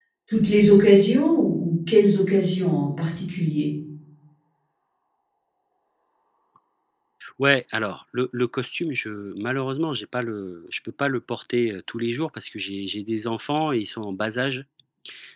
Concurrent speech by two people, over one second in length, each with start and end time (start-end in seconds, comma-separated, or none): none